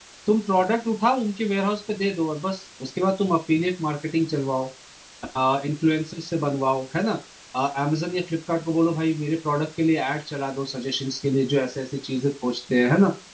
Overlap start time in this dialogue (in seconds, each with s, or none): none